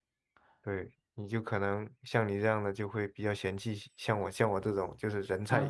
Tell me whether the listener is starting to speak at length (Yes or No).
Yes